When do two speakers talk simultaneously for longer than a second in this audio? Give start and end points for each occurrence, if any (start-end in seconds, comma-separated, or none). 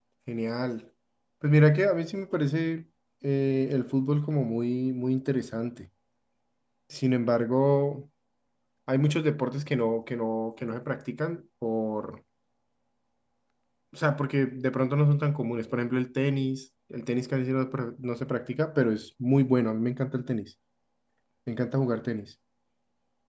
none